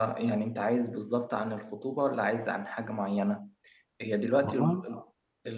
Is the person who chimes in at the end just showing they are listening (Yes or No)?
Yes